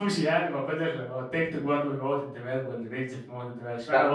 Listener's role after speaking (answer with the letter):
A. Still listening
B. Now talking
B